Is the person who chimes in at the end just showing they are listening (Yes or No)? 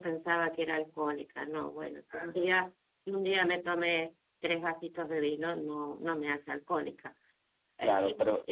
Yes